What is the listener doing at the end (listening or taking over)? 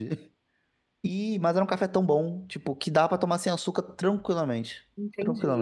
taking over